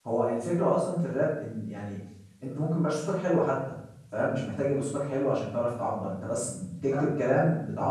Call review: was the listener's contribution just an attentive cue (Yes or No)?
Yes